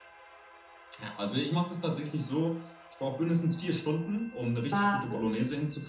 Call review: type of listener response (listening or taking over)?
listening